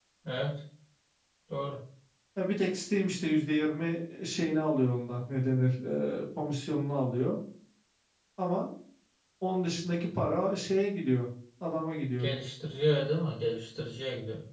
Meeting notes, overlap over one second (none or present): none